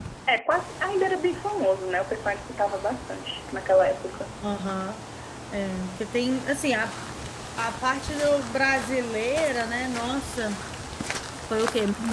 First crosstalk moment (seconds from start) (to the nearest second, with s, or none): none